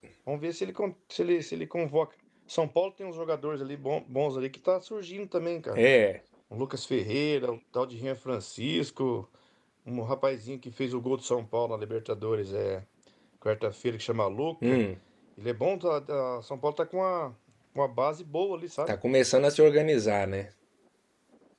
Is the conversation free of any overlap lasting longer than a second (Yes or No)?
Yes